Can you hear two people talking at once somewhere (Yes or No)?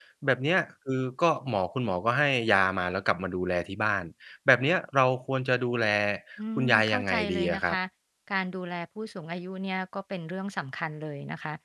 Yes